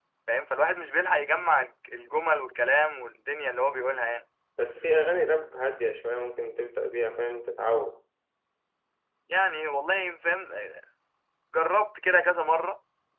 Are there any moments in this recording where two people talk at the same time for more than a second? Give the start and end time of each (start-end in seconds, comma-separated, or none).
none